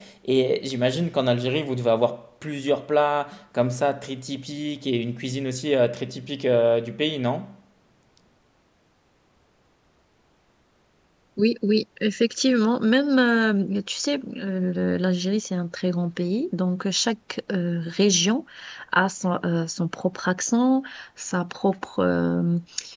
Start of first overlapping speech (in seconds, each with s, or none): none